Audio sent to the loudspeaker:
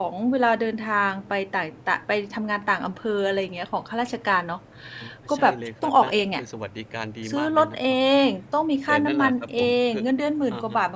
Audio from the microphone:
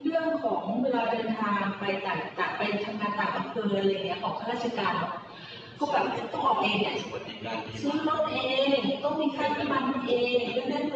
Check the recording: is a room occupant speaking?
No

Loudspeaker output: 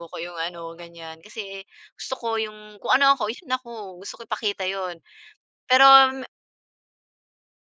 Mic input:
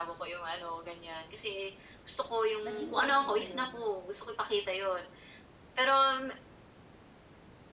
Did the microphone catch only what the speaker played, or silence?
No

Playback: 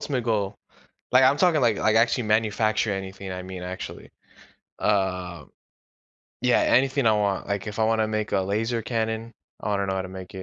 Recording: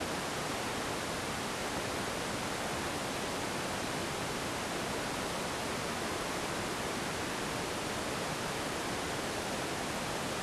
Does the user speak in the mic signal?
No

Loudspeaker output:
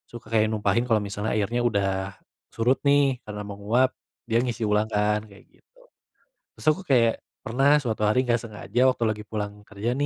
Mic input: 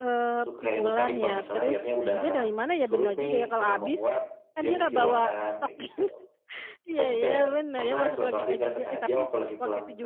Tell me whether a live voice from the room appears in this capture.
Yes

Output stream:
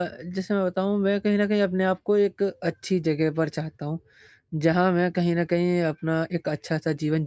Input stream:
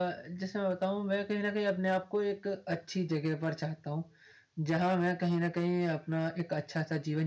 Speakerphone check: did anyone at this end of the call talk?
No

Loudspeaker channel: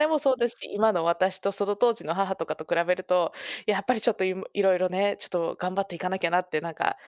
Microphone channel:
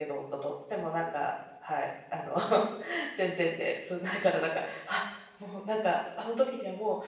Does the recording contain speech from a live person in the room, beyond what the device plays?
Yes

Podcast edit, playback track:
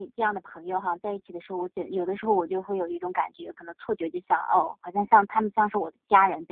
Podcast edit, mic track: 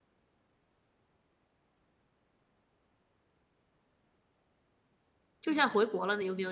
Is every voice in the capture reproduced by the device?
No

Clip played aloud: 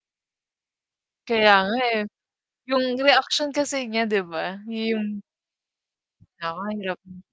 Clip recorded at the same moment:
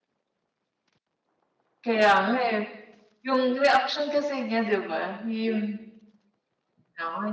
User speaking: No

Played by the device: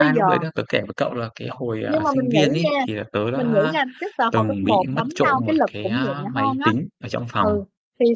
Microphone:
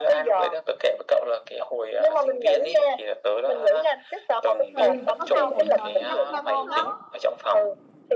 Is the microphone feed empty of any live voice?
No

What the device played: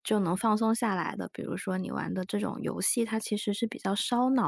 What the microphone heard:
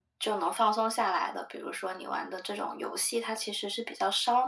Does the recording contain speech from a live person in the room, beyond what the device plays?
No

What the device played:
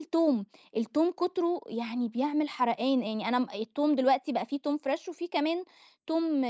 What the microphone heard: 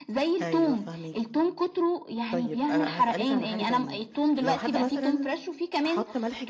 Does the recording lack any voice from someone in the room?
No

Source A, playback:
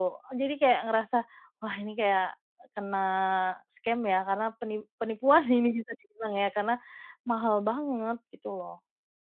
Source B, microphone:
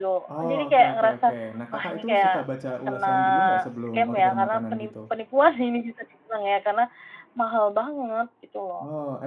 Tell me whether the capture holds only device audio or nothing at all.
No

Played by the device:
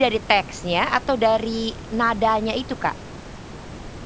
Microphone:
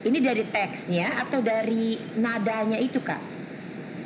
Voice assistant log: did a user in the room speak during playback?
No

